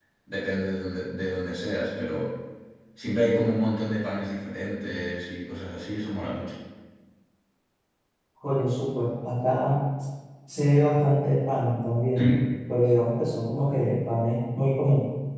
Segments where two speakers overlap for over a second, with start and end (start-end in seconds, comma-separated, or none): none